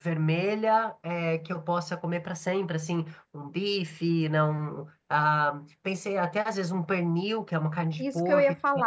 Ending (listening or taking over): taking over